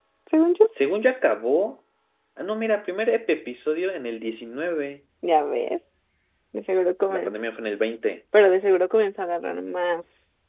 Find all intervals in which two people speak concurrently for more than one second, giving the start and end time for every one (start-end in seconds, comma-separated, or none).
none